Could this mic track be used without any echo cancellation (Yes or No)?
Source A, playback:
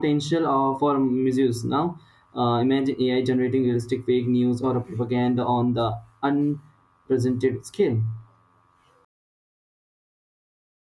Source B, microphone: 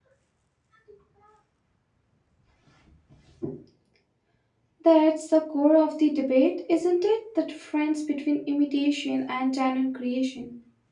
Yes